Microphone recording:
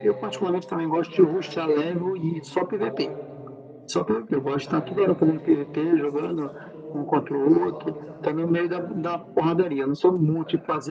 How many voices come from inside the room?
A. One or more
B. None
A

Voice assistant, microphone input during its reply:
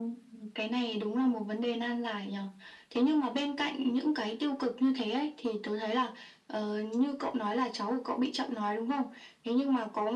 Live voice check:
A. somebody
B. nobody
B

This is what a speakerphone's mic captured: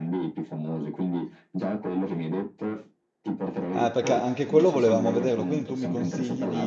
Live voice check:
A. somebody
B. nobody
A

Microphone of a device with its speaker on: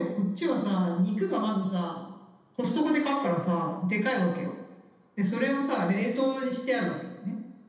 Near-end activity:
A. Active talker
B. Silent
B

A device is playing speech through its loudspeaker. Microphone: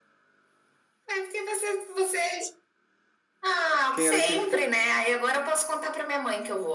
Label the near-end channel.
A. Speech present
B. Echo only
A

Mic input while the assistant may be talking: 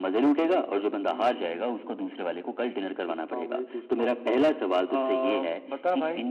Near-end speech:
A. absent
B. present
A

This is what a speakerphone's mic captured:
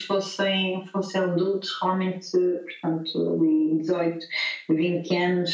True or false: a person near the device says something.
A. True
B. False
B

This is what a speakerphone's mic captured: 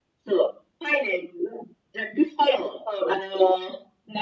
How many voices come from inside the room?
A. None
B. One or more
A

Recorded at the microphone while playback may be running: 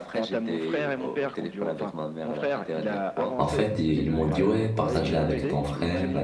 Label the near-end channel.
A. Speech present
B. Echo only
A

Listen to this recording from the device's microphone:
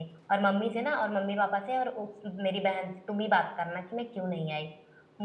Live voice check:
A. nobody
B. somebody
B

